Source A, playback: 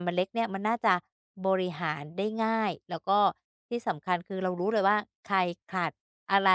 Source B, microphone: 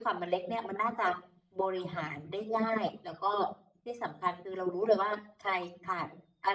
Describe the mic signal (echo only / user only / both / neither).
echo only